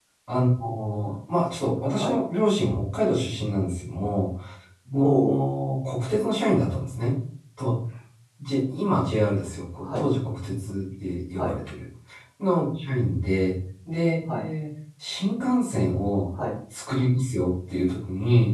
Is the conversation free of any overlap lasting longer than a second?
Yes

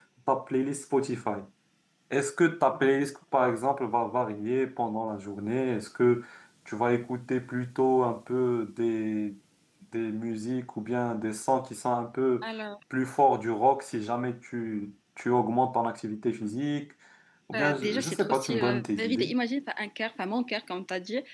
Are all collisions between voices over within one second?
No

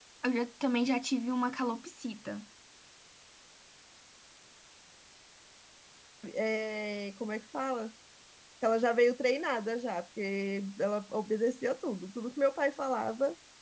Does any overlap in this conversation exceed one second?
No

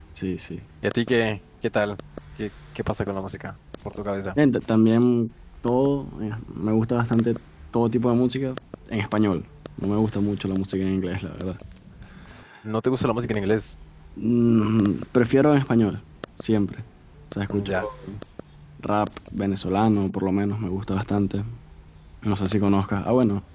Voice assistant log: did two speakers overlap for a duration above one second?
No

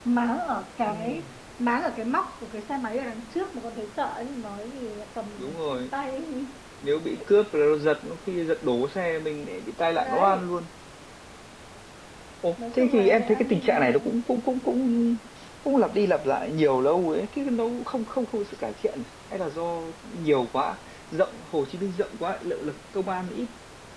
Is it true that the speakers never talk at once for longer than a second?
No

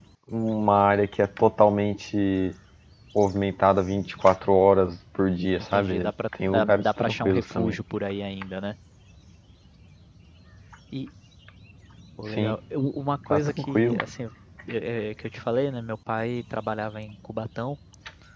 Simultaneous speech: Yes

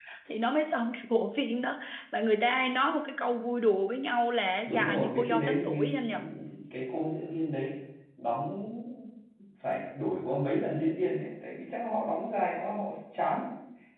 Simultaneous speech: Yes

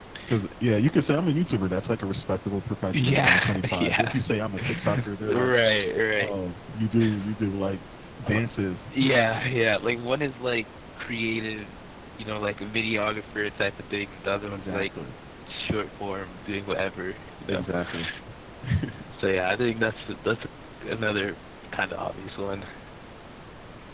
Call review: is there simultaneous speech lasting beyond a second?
Yes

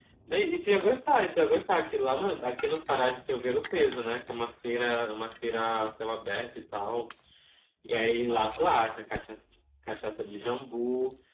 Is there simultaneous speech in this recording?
No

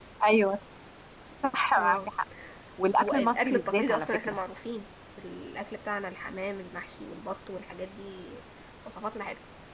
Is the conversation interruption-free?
No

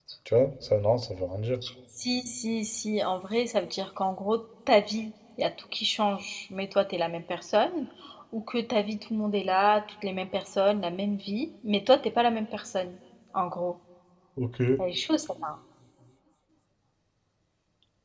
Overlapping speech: No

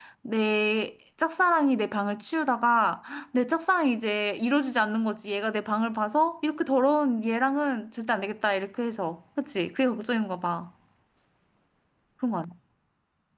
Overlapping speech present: No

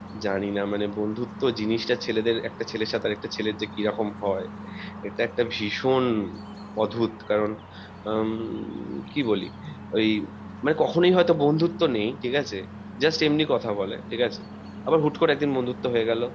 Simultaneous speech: No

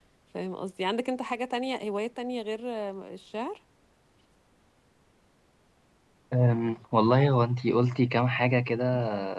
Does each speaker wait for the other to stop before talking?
Yes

